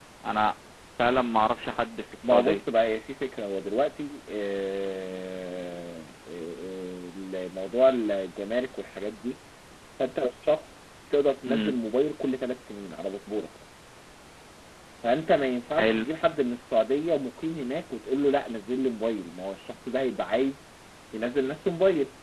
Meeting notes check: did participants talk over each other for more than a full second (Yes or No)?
No